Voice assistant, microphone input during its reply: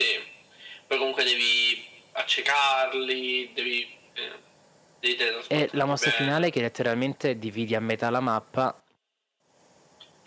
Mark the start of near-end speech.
5.5 s

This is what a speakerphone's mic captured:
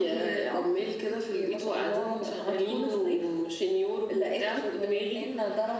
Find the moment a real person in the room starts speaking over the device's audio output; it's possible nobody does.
none

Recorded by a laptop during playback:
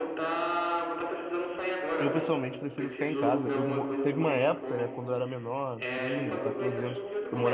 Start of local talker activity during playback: 2.0 s

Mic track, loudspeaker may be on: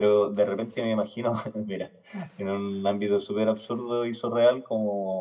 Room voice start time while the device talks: none

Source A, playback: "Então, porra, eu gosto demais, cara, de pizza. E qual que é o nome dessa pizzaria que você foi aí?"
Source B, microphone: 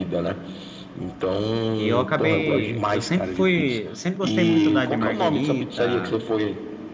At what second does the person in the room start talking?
1.8 s

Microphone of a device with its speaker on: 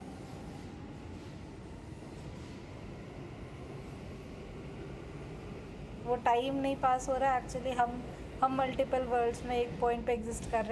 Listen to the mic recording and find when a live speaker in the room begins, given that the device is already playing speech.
6.0 s

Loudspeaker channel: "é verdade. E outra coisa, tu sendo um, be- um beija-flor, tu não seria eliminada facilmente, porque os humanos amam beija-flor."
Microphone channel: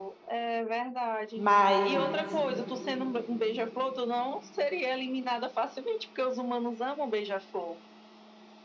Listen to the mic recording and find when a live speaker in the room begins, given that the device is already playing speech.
1.3 s

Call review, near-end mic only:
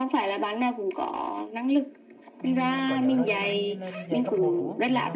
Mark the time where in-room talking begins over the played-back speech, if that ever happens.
2.4 s

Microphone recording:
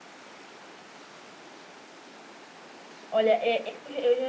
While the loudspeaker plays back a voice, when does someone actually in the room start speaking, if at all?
3.1 s

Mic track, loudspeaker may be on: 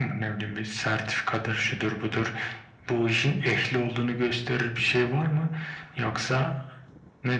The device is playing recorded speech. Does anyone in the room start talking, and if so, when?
none

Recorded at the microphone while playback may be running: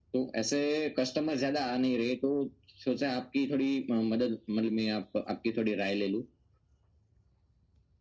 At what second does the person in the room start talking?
none

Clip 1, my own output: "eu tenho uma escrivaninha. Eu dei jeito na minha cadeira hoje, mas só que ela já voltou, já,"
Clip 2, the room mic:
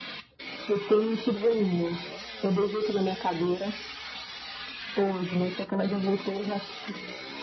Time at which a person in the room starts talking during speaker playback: none

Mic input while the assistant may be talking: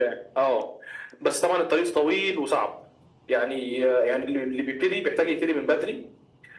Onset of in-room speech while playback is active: none

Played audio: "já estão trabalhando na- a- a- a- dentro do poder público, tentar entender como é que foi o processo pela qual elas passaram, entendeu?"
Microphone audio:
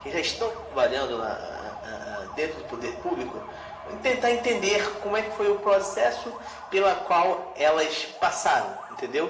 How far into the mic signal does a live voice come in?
none

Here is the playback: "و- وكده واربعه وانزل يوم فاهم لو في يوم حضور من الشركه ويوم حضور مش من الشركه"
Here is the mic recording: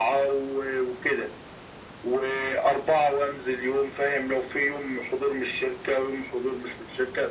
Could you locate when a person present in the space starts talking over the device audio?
none

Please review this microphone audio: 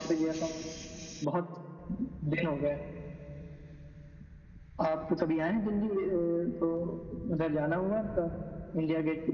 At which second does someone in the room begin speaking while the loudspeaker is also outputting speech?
none

